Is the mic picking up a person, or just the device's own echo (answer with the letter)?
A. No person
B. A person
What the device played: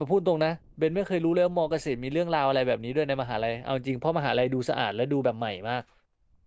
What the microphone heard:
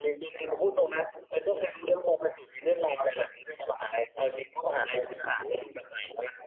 A